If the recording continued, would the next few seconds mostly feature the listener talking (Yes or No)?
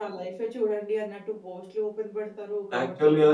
Yes